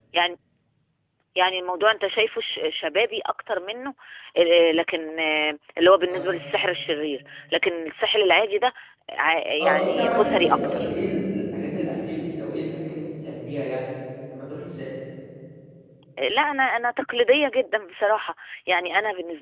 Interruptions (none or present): present